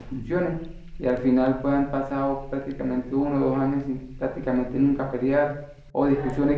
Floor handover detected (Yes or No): No